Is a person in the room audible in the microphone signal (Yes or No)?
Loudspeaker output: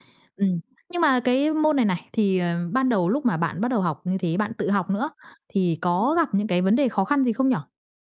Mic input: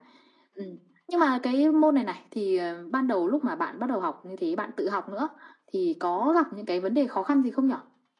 No